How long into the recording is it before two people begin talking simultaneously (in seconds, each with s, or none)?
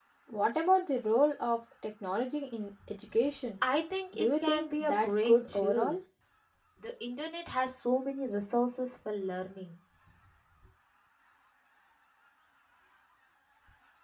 4.2 s